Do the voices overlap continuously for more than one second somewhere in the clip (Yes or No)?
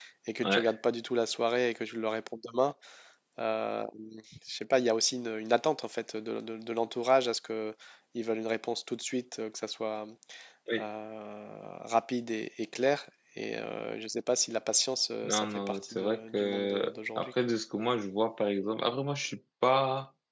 Yes